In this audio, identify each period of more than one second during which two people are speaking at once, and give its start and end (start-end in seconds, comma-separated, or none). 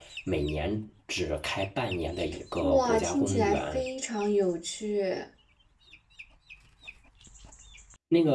2.6-3.8